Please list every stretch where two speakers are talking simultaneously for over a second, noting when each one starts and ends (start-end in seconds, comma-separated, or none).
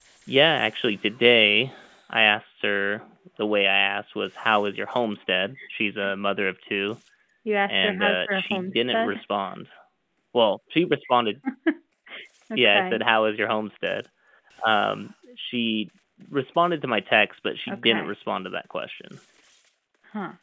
7.7-9.2